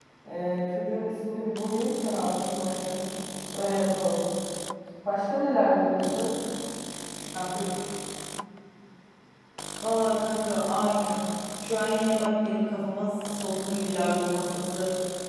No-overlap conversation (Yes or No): Yes